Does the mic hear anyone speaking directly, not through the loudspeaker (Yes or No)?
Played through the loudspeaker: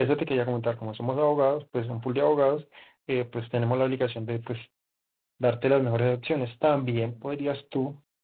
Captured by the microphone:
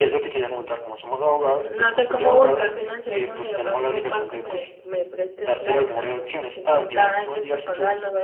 Yes